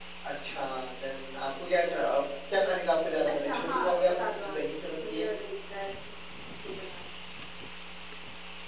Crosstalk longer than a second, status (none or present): present